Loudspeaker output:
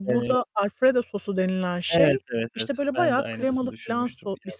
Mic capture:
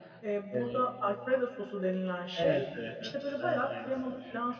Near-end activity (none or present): none